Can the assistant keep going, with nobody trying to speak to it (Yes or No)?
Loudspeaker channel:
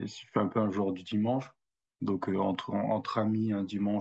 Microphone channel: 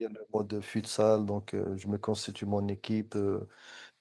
No